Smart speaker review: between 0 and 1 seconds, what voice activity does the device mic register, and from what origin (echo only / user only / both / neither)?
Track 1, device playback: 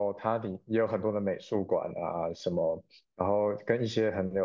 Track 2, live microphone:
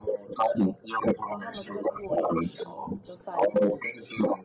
echo only